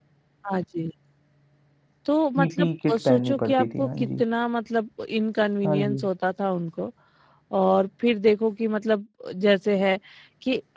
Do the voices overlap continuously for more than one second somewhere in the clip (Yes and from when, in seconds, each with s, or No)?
Yes, from 2.4 s